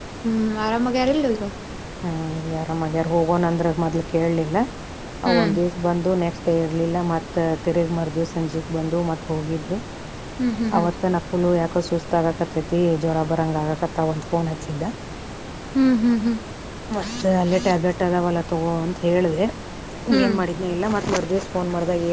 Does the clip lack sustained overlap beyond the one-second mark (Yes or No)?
Yes